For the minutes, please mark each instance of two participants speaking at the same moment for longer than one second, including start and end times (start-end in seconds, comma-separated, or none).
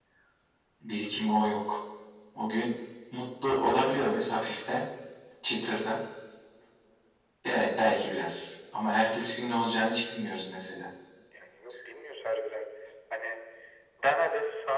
none